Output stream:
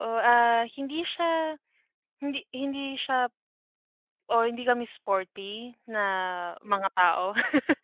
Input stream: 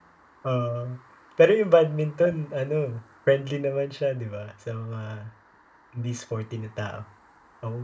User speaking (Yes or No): Yes